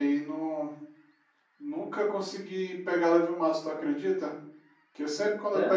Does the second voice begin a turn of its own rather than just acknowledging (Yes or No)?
No